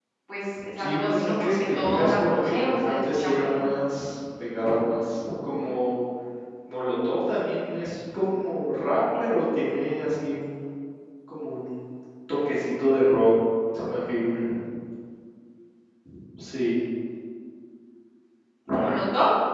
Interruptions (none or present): present